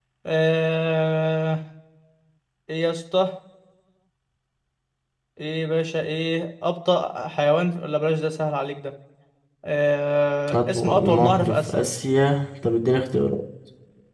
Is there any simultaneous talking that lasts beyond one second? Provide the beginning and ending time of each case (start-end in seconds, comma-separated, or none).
10.5-11.8